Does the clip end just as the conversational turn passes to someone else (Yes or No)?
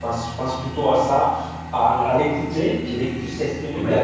No